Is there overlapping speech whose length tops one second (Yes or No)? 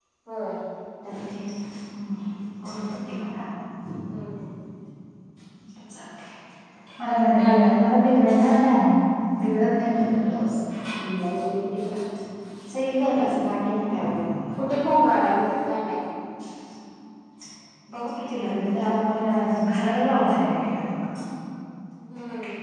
No